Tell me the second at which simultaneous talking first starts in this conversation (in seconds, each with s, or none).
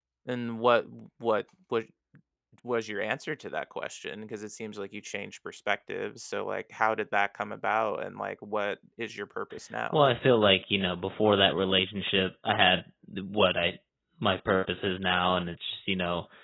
none